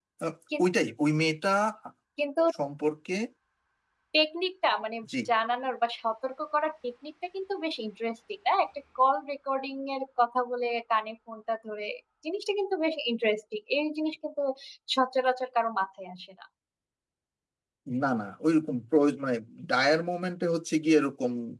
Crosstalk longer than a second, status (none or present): none